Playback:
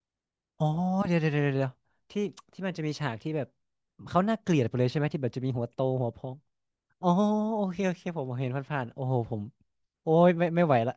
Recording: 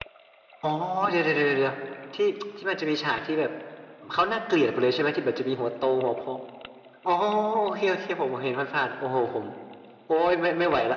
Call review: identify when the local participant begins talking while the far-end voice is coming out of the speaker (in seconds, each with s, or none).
none